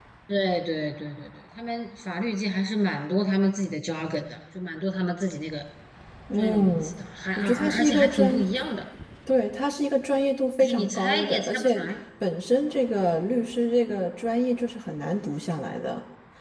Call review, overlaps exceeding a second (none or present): present